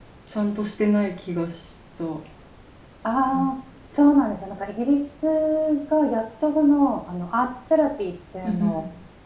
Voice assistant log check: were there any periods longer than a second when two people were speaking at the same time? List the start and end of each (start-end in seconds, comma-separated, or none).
none